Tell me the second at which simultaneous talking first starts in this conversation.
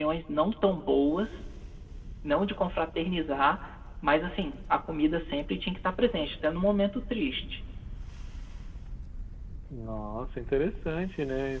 none

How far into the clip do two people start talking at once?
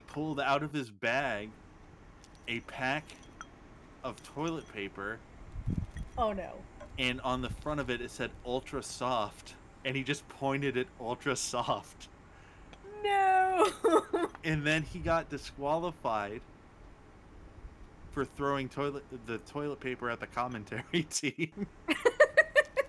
none

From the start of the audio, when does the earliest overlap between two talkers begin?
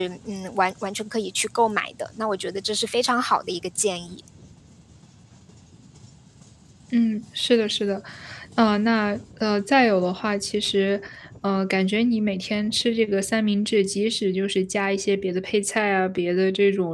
none

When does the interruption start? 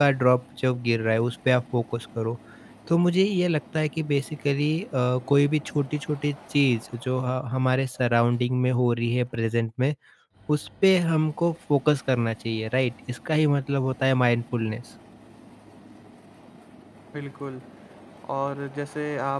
none

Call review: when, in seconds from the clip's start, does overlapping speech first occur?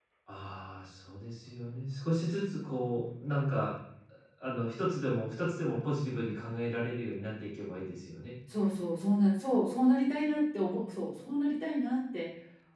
none

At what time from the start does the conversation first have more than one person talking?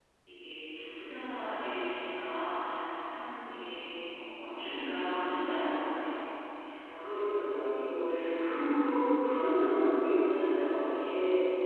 none

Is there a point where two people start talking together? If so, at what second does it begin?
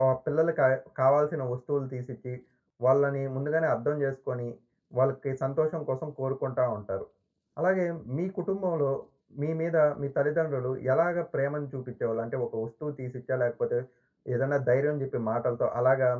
none

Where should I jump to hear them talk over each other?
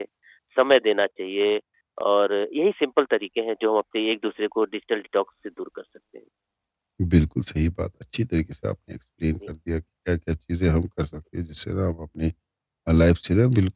none

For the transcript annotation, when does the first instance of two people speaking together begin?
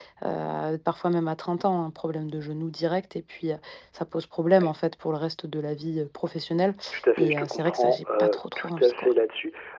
7.2 s

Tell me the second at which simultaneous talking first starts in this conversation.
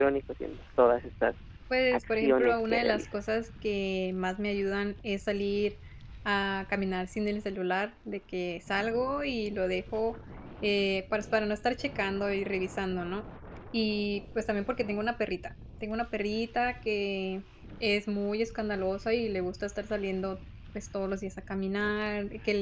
1.9 s

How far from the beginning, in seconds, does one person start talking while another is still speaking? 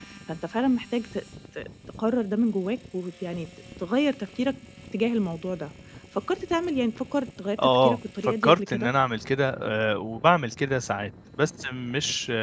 7.6 s

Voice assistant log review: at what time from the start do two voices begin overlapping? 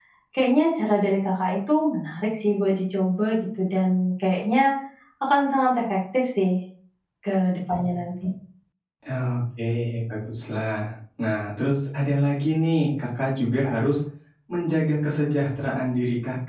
none

